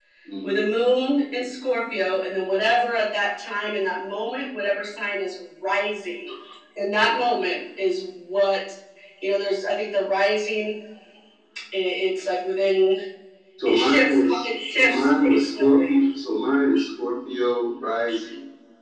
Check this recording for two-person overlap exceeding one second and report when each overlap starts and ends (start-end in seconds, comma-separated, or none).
13.7-16.0